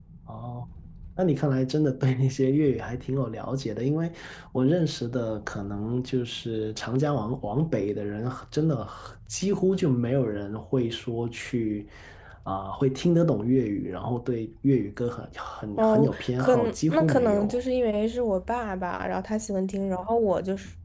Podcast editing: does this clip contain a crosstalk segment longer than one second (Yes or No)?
Yes